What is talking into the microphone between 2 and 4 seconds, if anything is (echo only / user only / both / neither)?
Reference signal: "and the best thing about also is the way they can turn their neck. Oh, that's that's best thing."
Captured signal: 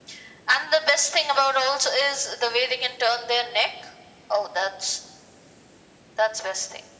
echo only